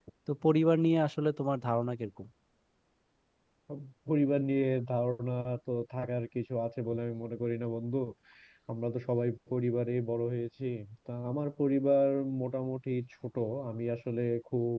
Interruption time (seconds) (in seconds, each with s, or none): none